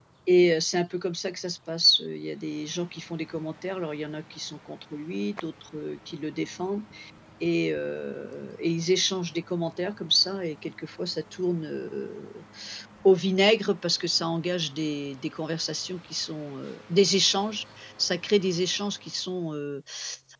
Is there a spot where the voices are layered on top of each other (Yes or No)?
No